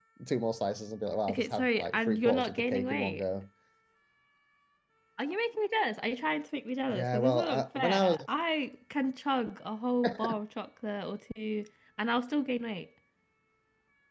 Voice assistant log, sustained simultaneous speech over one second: present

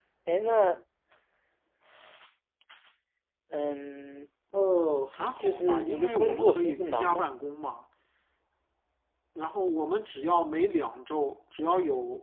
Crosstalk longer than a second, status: present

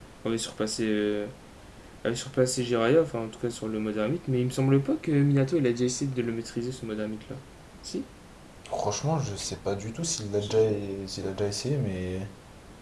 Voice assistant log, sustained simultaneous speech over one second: none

